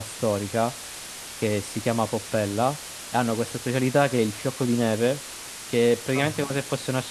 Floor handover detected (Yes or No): No